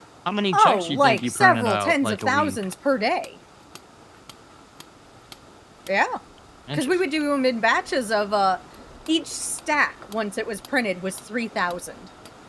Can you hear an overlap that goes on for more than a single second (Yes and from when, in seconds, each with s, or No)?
Yes, from 0.5 s